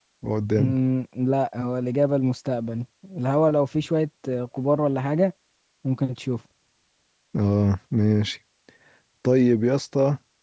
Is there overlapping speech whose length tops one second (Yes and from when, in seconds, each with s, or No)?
No